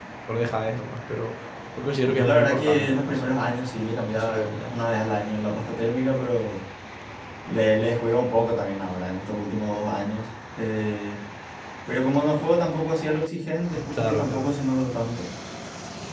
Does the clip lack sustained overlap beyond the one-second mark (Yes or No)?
No